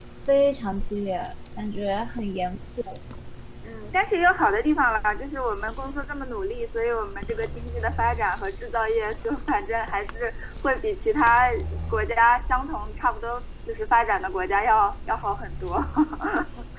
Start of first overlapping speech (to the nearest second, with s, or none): none